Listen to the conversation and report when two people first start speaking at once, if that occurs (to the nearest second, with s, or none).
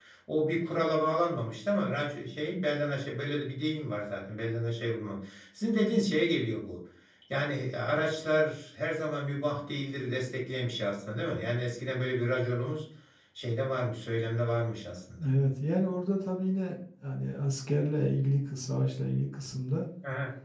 none